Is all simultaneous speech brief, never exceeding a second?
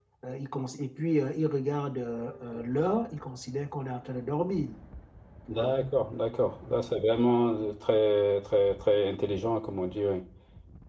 Yes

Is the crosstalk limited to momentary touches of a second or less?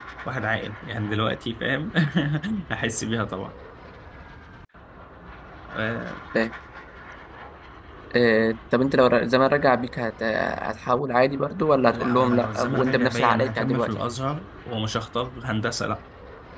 No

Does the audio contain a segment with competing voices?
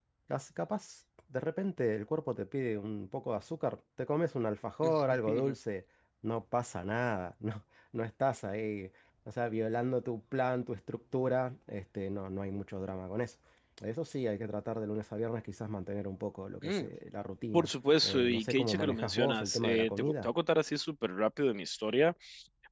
Yes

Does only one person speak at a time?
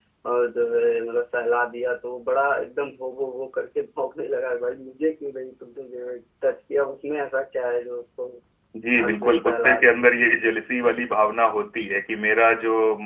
No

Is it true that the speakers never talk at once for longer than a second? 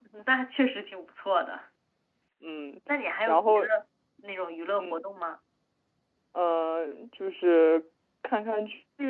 Yes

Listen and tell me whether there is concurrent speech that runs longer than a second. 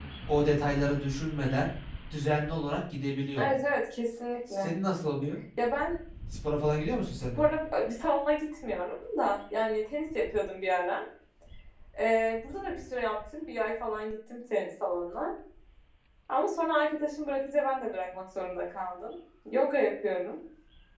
No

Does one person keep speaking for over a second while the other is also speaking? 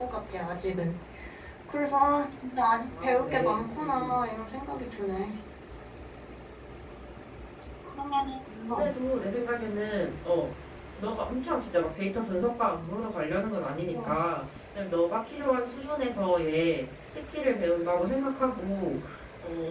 Yes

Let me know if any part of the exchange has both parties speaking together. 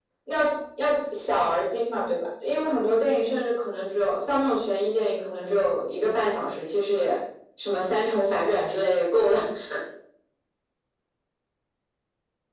No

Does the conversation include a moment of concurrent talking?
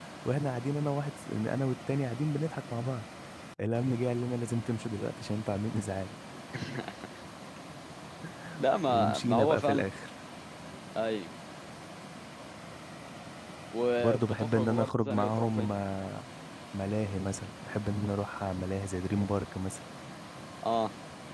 Yes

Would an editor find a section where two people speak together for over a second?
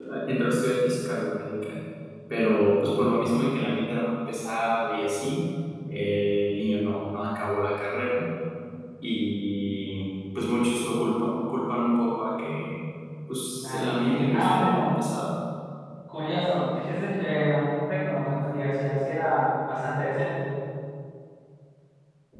Yes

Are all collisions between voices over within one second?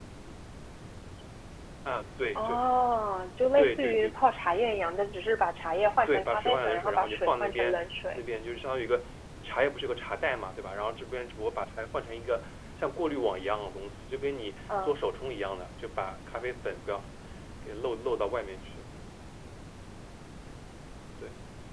No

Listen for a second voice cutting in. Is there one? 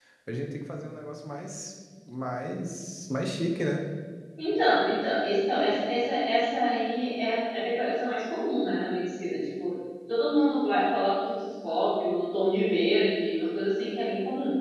No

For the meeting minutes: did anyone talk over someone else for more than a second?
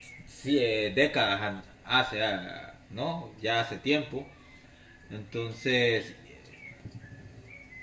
No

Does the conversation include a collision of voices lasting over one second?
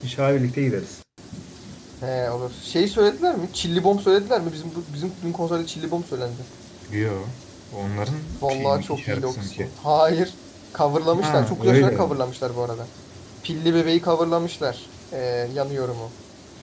Yes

